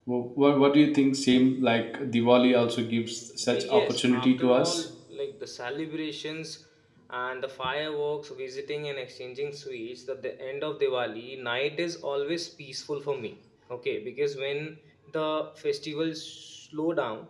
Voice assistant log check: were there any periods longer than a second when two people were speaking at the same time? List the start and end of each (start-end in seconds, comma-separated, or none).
3.5-4.8